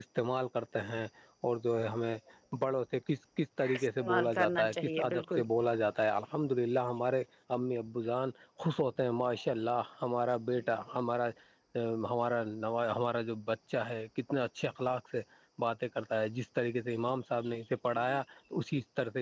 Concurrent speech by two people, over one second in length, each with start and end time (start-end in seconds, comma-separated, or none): 3.8-5.4